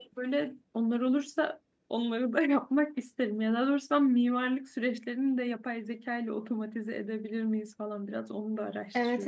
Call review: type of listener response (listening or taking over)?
taking over